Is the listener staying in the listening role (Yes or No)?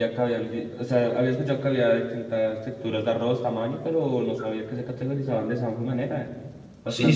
No